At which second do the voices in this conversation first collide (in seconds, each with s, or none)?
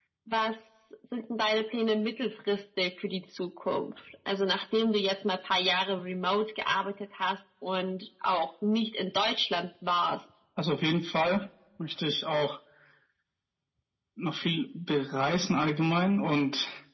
none